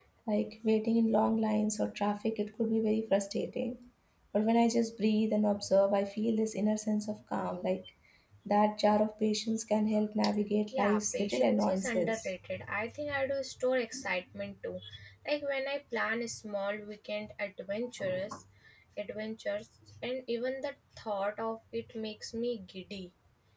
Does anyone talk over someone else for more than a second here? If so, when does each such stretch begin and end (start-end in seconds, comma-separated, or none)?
10.8-12.3